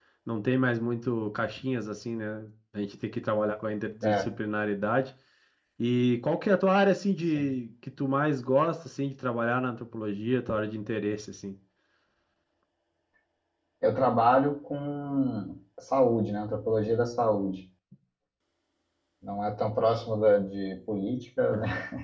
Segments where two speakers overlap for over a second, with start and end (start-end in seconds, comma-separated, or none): none